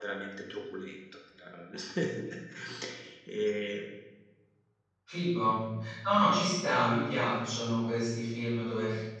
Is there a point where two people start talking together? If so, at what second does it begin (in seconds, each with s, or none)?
none